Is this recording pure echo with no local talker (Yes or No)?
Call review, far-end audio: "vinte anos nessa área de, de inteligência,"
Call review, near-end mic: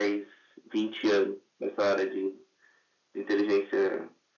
Yes